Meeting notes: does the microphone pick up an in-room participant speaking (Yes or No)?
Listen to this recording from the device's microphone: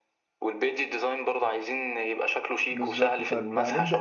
Yes